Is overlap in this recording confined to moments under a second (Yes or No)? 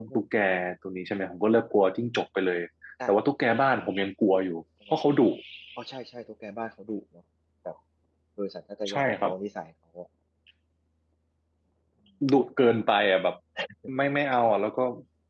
Yes